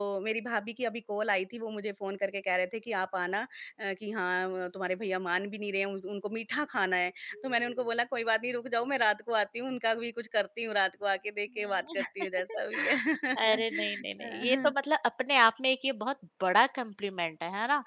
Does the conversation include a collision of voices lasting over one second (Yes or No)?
Yes